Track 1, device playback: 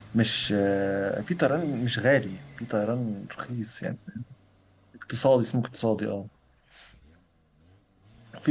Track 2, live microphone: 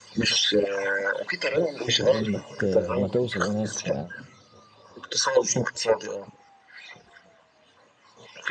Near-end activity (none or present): present